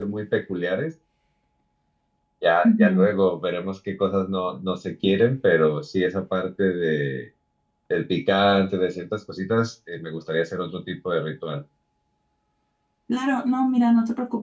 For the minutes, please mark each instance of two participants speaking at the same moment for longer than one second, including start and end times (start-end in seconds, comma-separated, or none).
none